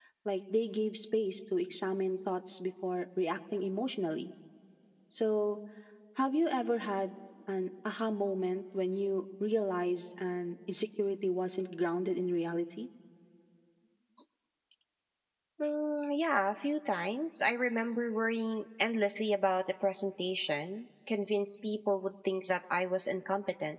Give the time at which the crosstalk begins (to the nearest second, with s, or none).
none